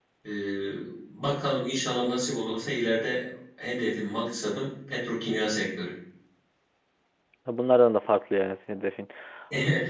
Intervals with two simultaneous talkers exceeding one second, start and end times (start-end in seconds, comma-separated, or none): none